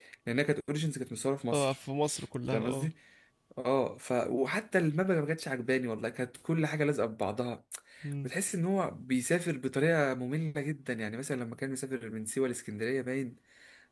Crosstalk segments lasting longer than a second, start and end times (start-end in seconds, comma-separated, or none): none